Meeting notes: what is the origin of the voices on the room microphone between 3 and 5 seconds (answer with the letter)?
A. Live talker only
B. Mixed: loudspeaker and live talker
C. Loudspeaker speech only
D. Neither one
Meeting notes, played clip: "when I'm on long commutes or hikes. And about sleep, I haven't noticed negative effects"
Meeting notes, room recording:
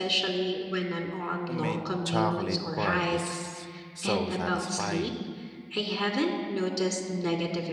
B